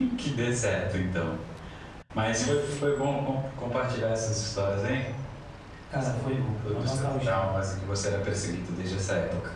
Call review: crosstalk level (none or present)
present